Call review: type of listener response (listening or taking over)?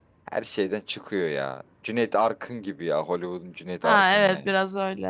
taking over